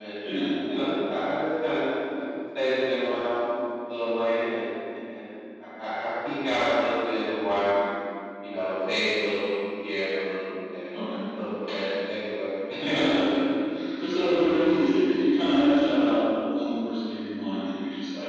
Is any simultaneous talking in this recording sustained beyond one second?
No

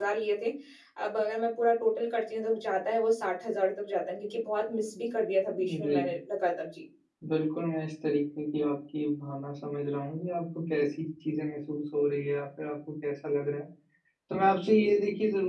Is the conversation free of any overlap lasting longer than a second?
Yes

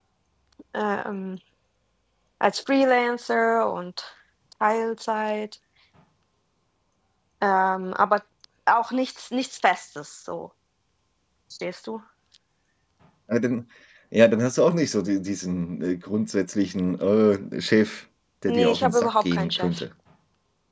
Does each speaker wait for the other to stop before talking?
No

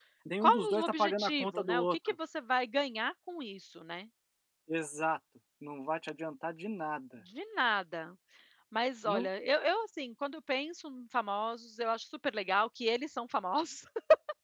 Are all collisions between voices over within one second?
No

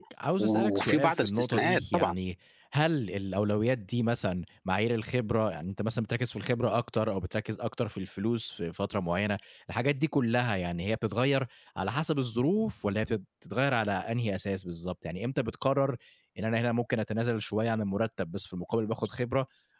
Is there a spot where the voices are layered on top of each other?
Yes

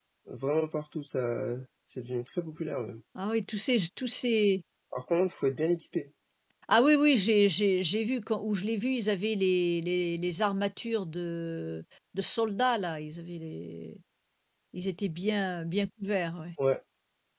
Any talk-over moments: No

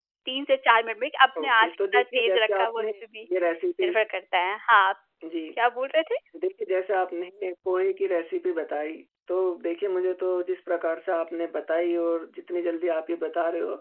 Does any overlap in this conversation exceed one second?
Yes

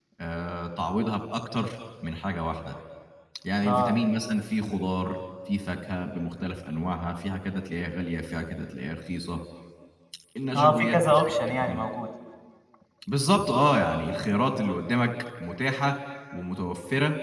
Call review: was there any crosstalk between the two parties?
Yes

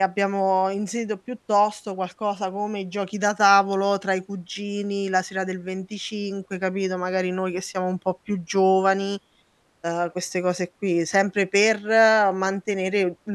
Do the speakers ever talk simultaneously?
No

